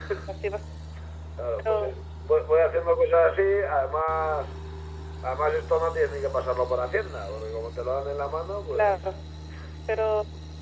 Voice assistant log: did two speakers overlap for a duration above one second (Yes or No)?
No